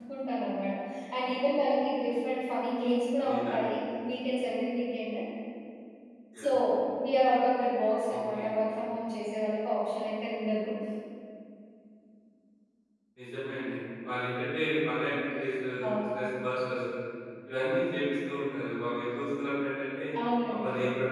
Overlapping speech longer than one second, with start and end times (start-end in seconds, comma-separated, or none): none